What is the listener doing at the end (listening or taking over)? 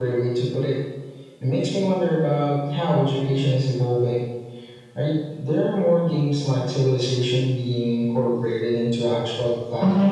taking over